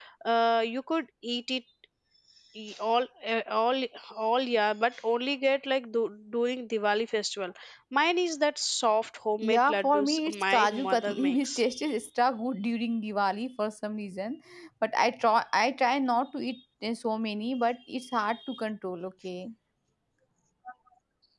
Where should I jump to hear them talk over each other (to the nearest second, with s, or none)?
9 s